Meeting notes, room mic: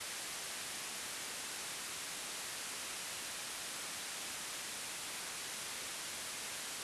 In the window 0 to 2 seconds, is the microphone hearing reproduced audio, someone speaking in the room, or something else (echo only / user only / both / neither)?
neither